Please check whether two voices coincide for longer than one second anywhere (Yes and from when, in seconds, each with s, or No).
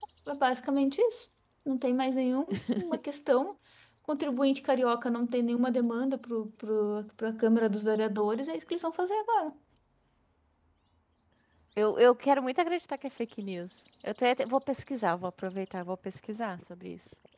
No